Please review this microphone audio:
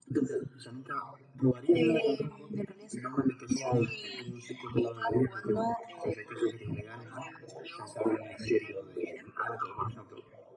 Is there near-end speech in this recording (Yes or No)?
No